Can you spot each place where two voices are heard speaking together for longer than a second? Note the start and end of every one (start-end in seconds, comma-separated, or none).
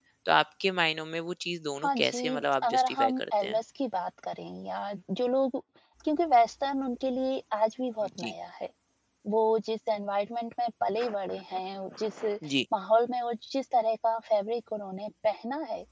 1.8-3.6